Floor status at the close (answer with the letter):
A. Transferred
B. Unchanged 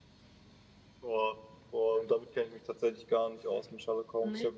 B